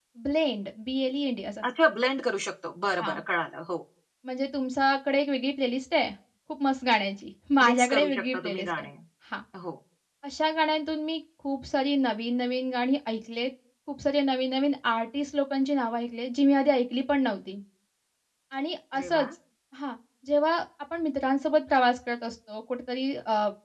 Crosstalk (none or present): present